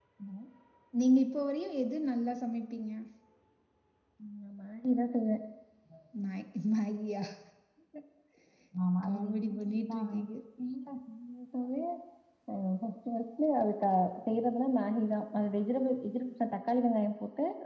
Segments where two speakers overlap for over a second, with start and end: 9.1-10.3

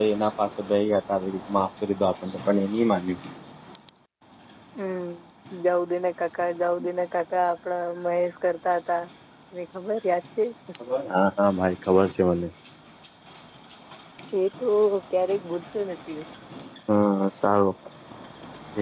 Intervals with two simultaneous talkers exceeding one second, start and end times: none

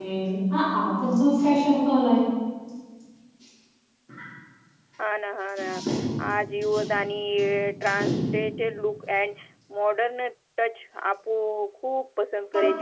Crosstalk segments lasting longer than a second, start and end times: none

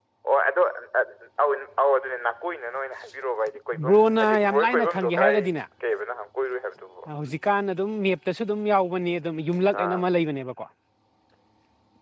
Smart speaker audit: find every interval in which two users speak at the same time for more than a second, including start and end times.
3.9-5.4

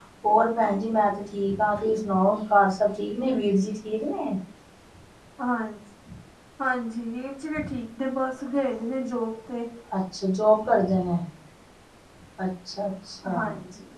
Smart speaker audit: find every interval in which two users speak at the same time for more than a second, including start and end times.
none

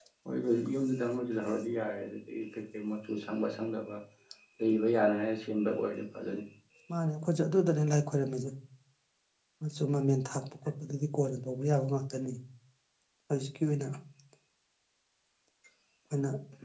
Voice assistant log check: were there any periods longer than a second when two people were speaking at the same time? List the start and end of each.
none

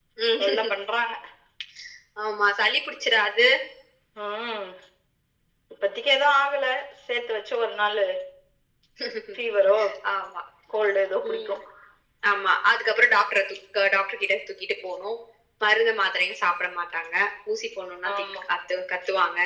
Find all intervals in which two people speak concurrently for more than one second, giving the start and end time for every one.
none

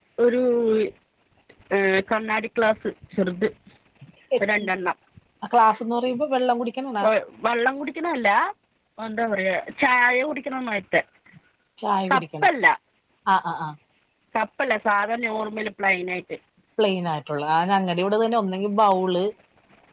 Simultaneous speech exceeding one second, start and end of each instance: none

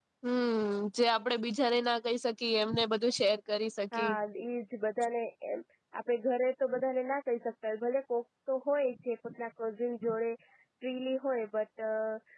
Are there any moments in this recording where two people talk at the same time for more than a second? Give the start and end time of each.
none

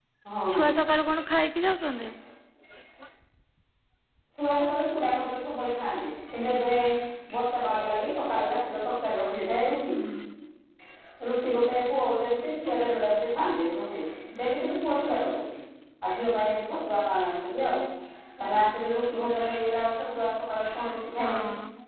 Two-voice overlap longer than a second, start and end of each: none

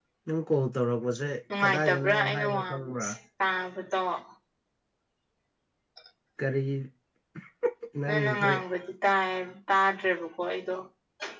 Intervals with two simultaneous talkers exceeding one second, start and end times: 1.6-3.1

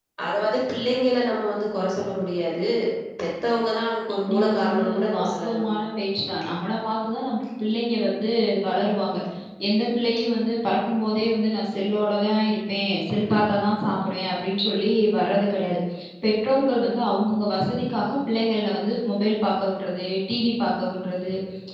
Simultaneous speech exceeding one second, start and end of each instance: 4.3-5.6

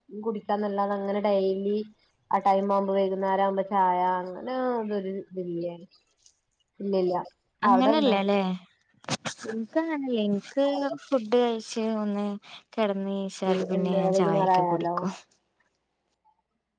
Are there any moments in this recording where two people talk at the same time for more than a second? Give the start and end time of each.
13.5-14.9

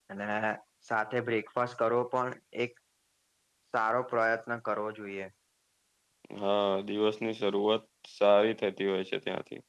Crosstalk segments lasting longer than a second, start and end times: none

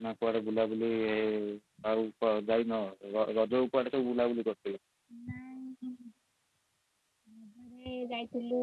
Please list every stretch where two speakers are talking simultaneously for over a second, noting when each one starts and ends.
none

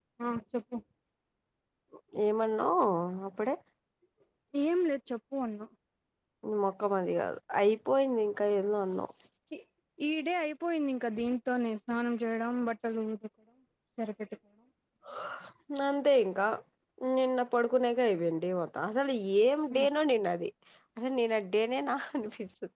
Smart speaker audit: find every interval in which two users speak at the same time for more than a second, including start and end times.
none

